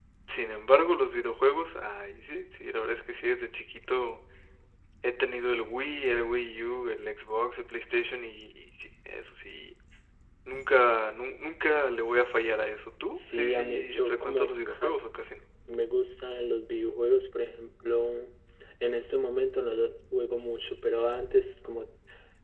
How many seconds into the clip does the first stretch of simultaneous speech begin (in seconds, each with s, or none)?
13.2 s